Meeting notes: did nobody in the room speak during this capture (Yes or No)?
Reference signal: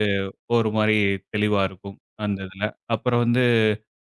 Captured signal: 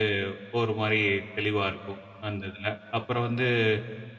Yes